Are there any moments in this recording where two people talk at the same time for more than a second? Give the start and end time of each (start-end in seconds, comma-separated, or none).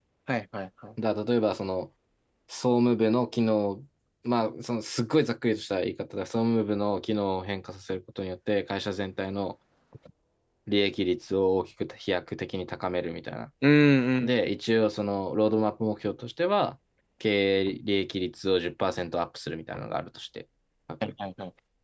none